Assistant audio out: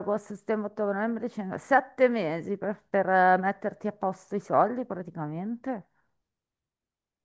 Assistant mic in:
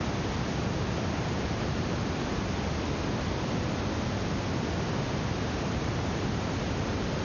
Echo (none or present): none